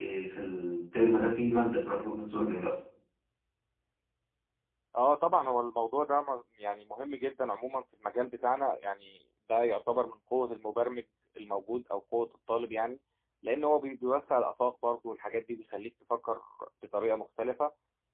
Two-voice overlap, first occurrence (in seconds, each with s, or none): none